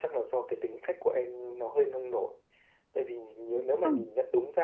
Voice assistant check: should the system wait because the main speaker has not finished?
Yes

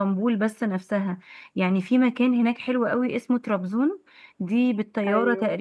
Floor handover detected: No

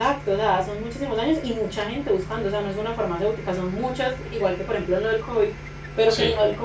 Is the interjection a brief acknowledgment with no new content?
Yes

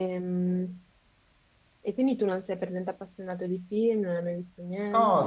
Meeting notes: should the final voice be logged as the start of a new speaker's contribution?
Yes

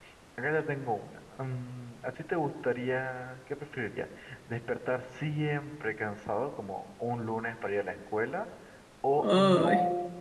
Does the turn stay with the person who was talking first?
Yes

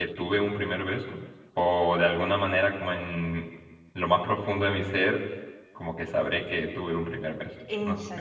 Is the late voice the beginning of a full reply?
Yes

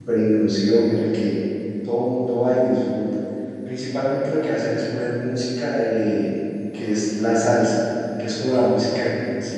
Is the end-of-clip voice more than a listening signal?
No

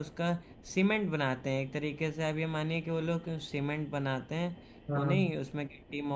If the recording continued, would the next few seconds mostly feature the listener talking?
No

